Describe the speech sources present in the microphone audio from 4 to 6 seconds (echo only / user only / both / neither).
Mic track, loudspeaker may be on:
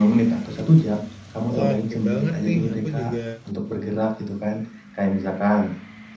echo only